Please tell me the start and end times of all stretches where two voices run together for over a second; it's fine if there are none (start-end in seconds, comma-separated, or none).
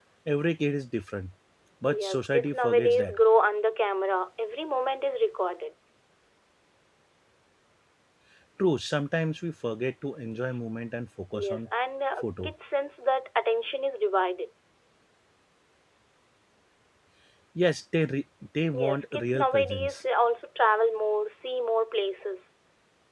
2.0-3.2, 18.7-20.0